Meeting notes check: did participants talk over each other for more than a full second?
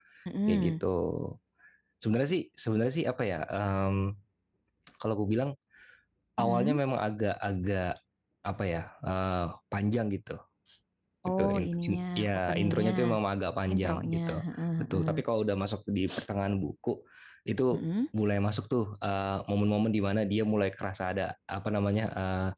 Yes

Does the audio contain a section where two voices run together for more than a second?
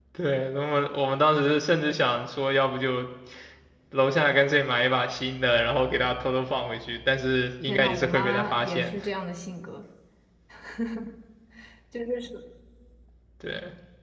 Yes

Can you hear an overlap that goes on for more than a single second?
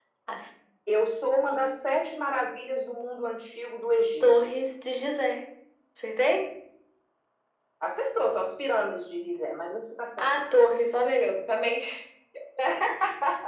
No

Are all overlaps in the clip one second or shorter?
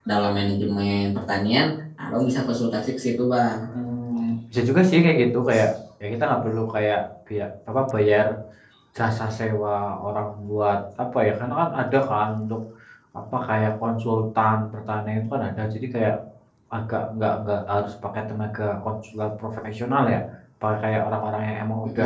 Yes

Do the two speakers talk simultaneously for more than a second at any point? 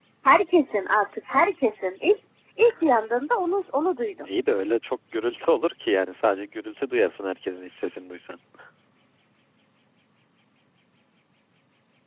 No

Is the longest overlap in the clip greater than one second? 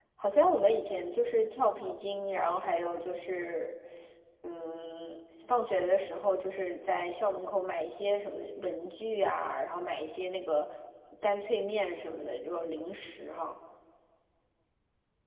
No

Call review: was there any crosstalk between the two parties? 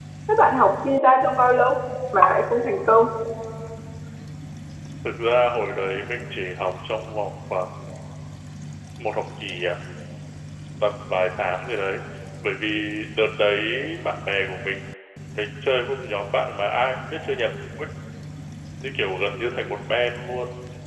No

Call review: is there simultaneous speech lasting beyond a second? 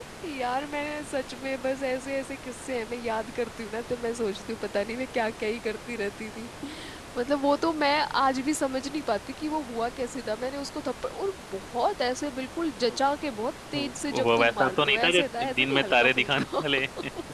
Yes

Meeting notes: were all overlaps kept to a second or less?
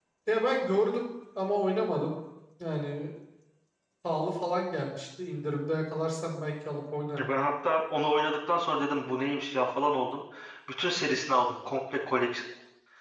Yes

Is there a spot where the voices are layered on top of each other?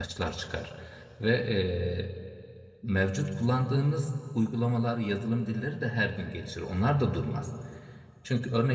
No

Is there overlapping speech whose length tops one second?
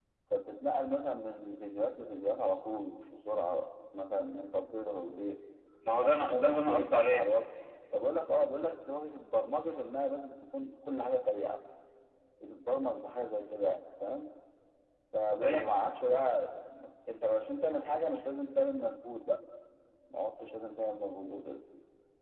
Yes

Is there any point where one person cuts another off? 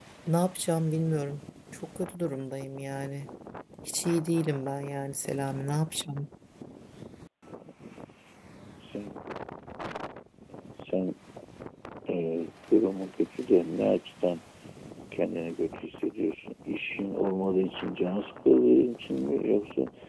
No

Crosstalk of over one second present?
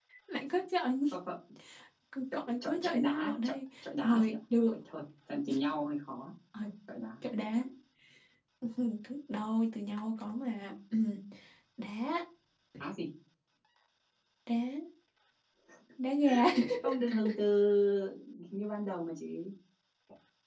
Yes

